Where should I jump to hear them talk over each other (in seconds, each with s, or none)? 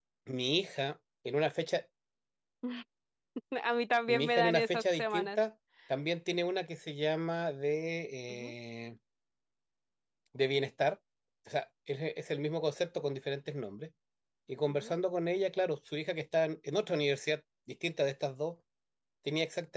4.1 s